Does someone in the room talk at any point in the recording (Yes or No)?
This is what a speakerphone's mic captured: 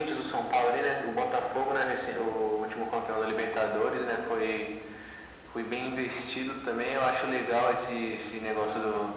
No